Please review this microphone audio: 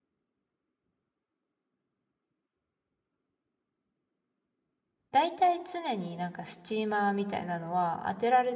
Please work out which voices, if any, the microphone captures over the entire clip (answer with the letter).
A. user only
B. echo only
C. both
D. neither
A